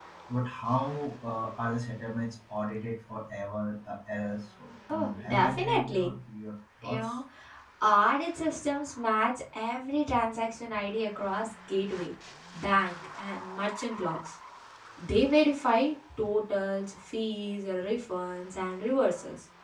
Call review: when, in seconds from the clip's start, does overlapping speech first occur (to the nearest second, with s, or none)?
5 s